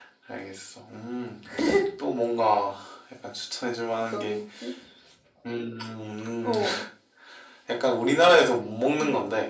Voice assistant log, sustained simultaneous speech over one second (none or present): none